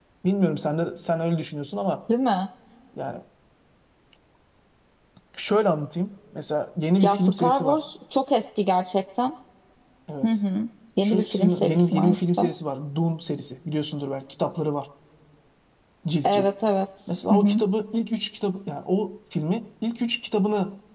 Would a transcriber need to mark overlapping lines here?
Yes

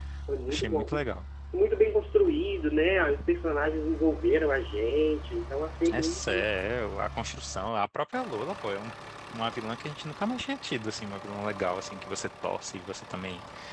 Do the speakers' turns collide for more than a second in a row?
No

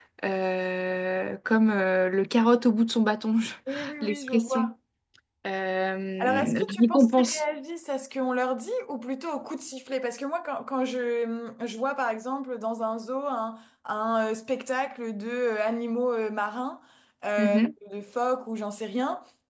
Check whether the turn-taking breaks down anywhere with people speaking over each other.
Yes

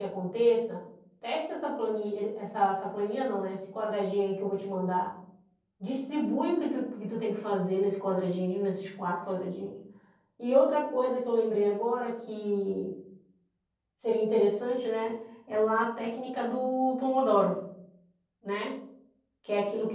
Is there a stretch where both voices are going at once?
No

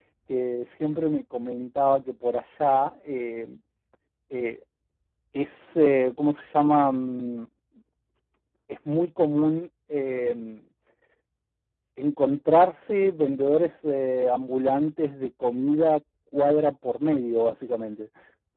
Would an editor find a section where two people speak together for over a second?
No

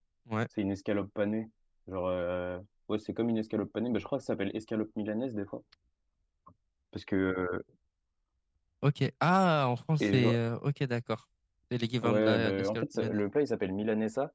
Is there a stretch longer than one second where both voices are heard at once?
Yes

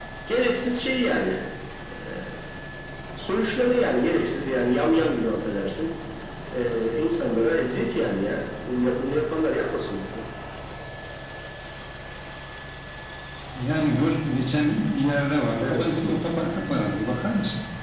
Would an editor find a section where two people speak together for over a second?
No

